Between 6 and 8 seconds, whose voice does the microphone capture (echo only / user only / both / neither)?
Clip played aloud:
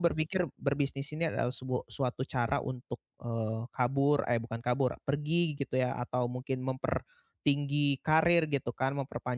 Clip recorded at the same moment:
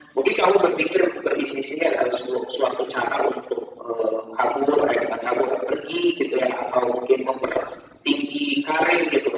echo only